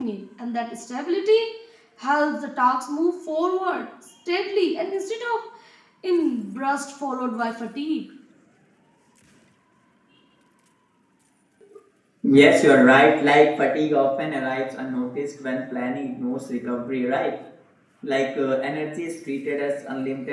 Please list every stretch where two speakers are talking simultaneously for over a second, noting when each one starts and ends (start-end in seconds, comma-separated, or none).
none